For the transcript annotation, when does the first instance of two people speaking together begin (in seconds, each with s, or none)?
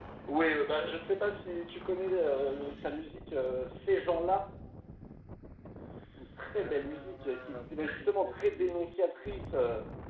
6.6 s